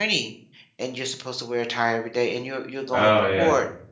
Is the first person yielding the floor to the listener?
No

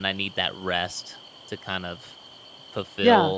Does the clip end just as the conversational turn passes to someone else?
No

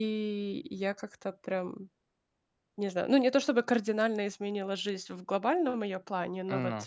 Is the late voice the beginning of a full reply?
No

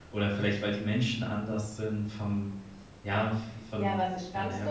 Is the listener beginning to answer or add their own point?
Yes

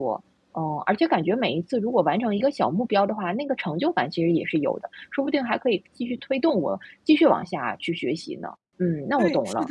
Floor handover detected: Yes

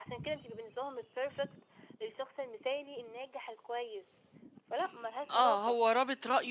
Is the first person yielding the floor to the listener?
Yes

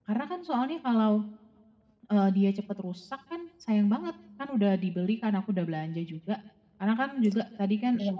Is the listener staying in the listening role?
Yes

